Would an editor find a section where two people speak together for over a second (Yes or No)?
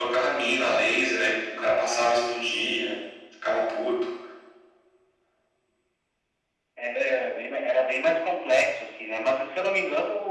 No